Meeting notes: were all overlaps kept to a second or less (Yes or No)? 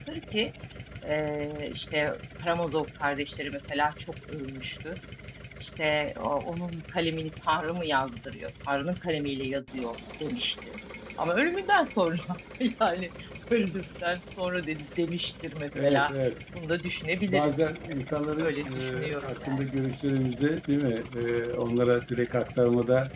No